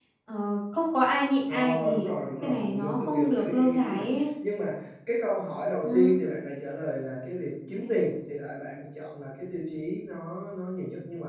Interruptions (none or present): present